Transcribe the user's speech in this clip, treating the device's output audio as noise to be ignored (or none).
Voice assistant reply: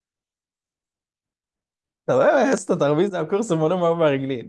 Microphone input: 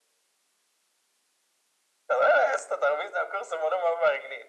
none